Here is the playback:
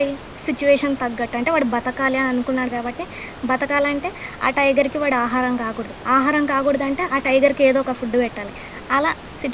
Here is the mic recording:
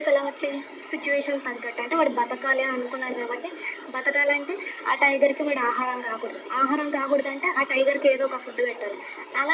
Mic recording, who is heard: echo only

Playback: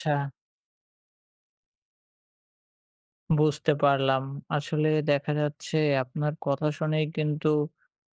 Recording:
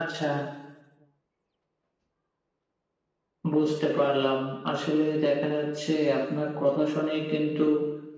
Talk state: echo only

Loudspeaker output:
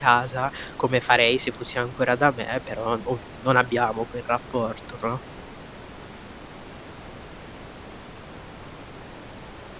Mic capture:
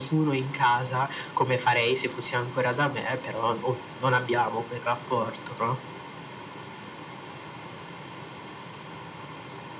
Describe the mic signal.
echo only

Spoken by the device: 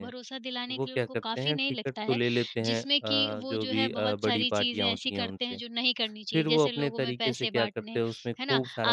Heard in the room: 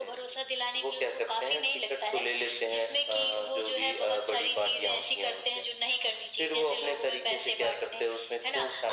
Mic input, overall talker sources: echo only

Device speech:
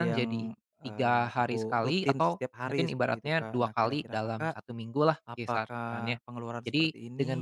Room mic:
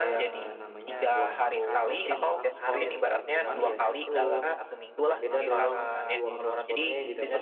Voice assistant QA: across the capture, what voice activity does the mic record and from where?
both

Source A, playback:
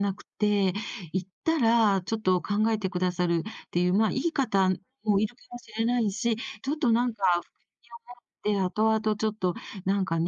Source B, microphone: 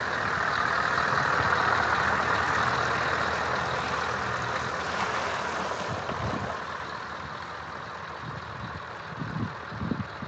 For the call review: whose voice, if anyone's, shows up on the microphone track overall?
neither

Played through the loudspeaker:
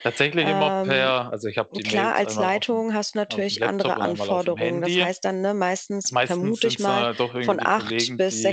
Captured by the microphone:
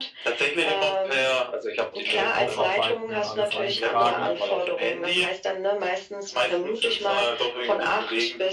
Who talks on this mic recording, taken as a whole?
both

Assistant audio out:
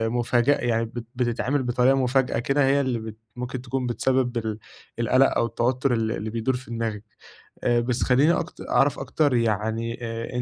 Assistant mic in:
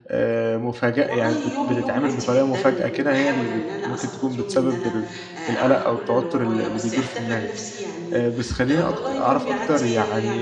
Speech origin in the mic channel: both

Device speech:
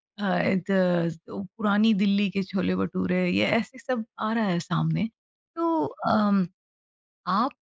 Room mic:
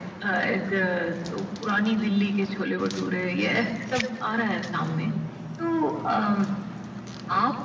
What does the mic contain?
echo only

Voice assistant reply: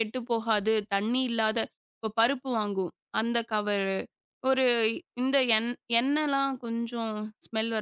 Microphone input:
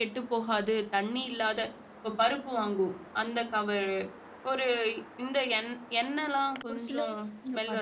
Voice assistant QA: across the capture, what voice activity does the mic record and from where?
both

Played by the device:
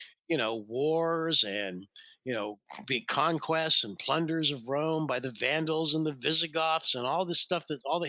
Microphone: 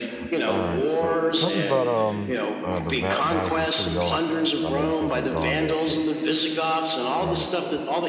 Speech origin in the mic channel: both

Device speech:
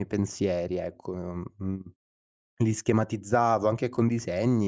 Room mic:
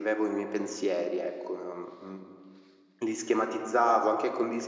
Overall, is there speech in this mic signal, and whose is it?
echo only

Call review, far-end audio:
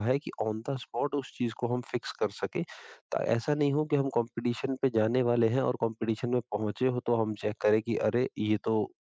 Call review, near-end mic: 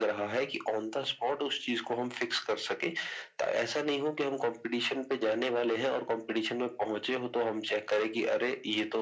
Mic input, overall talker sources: echo only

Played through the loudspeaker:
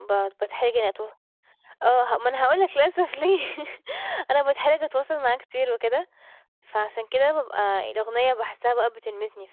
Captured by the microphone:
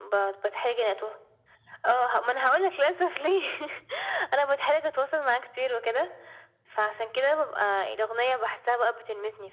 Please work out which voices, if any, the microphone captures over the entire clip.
echo only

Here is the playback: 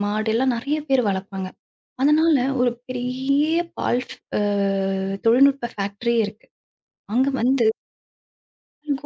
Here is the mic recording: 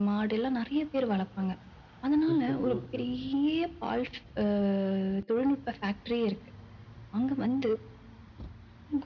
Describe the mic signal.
both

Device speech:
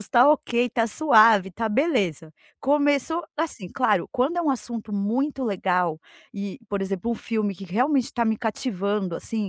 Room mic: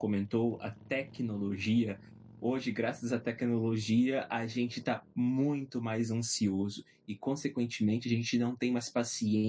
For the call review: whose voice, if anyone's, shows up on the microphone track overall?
user only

